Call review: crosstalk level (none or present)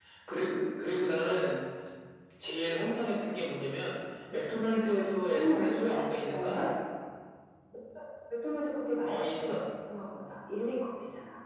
present